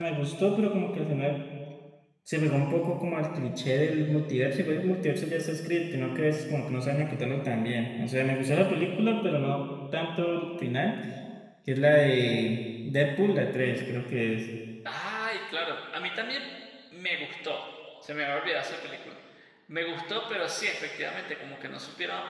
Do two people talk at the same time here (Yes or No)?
No